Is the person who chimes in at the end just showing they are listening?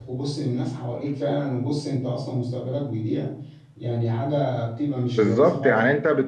No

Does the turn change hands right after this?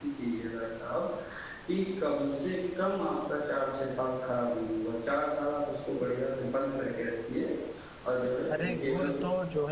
Yes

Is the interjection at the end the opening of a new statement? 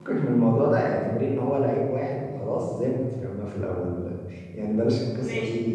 No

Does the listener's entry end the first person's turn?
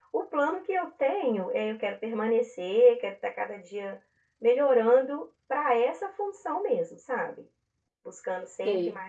No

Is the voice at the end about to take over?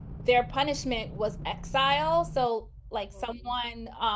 No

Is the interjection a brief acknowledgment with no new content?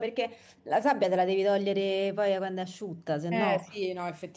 No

